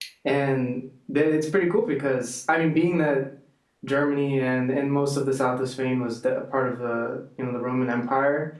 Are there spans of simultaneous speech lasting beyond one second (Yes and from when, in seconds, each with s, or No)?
No